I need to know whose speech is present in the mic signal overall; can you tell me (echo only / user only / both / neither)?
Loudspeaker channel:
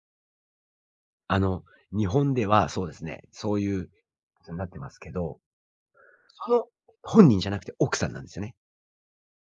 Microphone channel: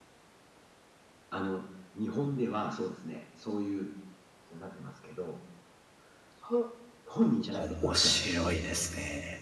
both